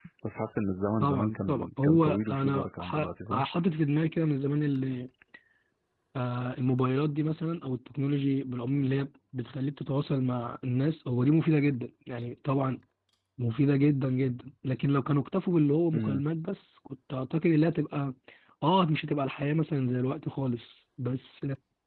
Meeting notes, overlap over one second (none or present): present